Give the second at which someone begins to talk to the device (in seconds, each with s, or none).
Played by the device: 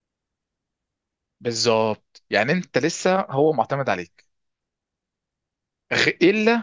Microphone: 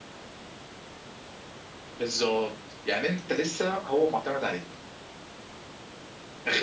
none